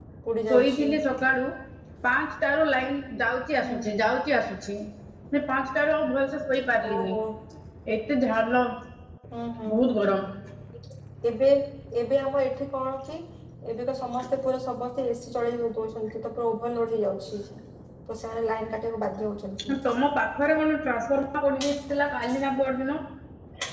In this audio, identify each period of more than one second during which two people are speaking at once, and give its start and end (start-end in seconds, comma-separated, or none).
none